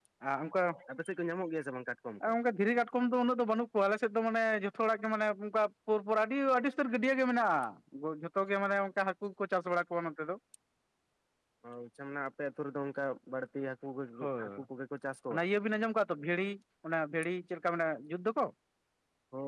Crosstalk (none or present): none